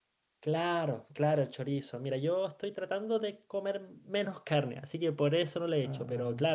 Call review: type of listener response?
listening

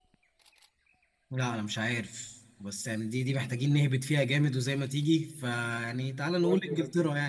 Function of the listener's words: listening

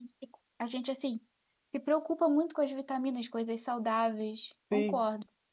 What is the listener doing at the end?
taking over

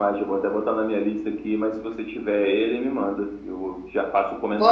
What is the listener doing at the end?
taking over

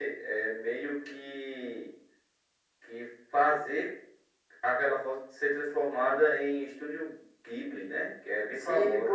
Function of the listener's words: taking over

